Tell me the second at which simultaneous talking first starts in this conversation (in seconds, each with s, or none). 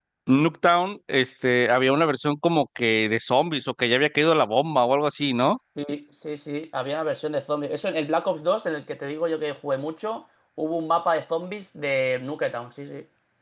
none